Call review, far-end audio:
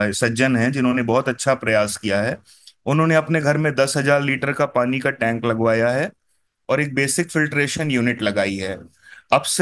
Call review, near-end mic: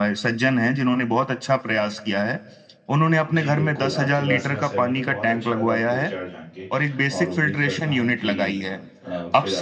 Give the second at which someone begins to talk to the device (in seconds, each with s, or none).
3.4 s